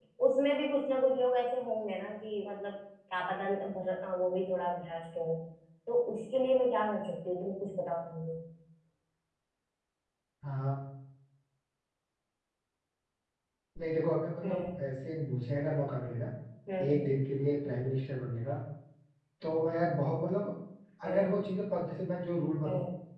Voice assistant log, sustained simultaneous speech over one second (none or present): none